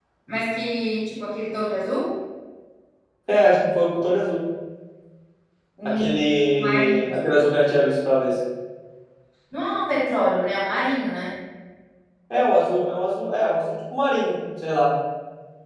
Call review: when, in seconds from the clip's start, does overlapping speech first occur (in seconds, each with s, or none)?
5.8 s